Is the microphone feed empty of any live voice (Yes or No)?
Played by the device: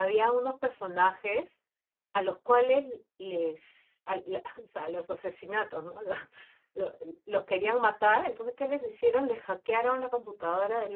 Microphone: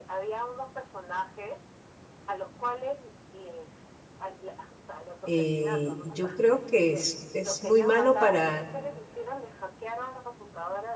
No